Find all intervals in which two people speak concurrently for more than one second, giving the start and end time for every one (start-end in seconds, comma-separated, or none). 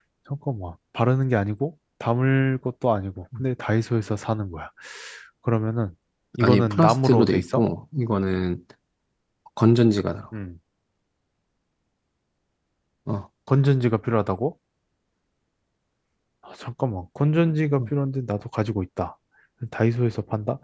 6.4-7.6